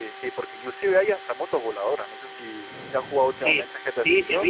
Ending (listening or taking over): taking over